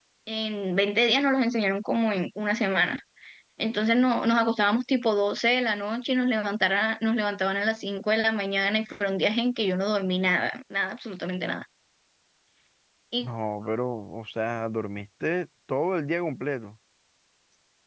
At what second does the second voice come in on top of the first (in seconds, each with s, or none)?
none